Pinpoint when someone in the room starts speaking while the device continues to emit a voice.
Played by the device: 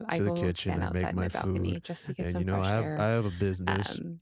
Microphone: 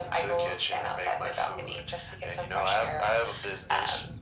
none

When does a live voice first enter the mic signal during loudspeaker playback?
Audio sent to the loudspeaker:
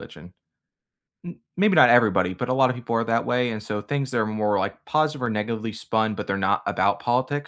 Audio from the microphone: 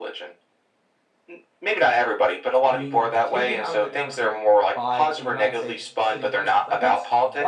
2.7 s

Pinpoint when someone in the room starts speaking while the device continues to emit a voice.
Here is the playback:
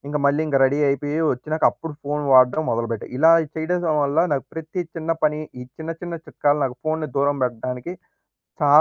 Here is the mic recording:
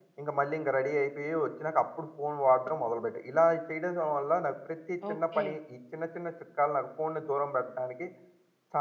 5.1 s

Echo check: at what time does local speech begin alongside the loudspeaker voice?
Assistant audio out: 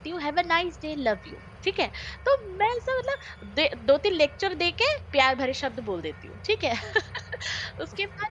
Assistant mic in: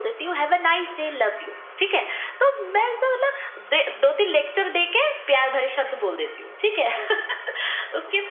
none

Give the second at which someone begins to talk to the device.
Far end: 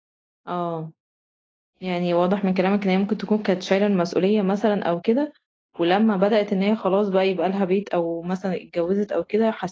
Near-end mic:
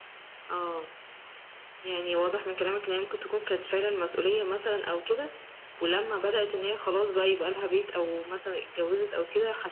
none

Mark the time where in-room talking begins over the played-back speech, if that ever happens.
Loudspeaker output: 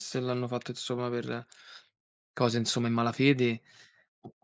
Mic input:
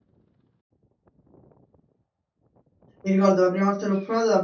3.0 s

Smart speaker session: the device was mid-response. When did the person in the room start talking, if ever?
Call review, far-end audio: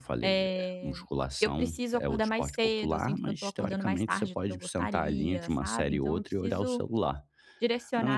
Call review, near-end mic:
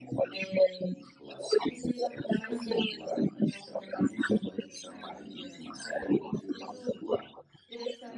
2.5 s

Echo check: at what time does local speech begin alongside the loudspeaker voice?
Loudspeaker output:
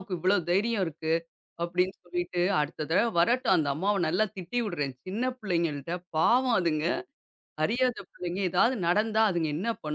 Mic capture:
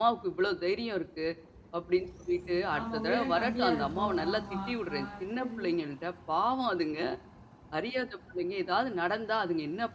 2.8 s

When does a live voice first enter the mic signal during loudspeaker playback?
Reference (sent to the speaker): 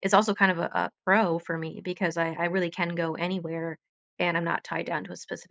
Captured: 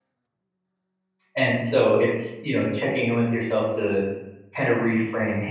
1.3 s

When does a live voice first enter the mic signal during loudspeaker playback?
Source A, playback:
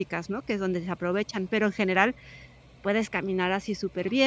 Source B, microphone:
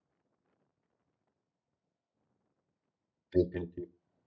3.3 s

